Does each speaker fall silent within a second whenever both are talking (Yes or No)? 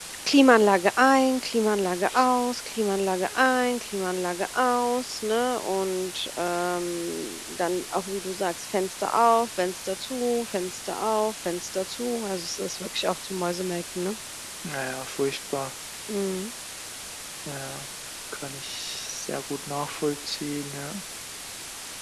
Yes